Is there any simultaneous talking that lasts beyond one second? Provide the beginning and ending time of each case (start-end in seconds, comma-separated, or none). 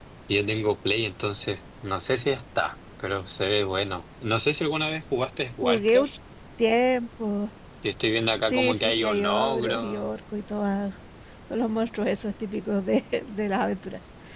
8.5-10.2